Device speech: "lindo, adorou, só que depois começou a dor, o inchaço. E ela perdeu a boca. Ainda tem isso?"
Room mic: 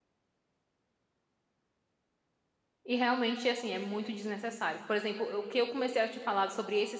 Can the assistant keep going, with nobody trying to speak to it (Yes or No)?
No